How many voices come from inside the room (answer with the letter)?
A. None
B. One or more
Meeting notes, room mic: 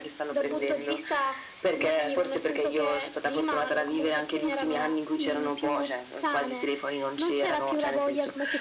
A